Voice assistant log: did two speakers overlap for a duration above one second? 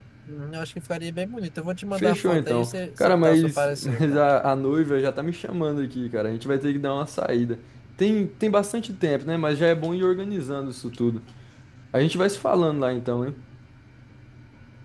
Yes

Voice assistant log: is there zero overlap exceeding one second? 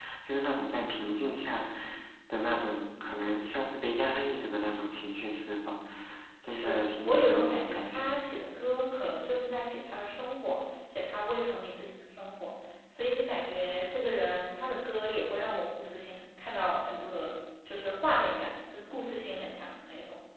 No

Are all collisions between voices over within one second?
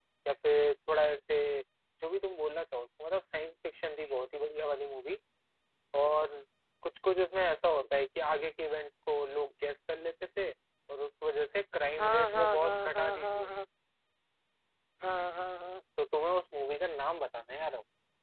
No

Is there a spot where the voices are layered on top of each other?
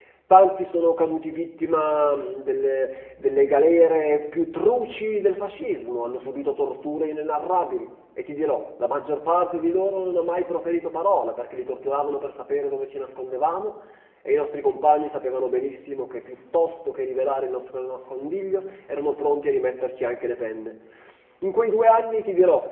No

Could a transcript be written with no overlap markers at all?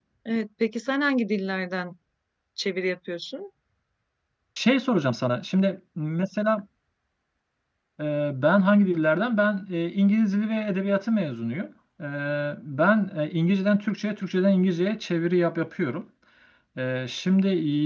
Yes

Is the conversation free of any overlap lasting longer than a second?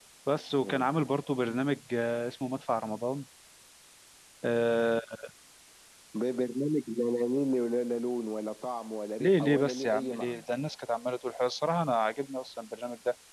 No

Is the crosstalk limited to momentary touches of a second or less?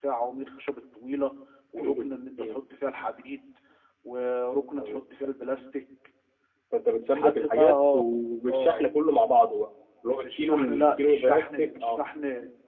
No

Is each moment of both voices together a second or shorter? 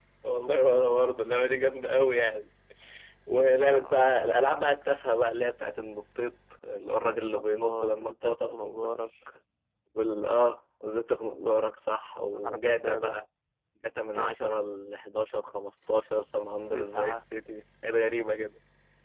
No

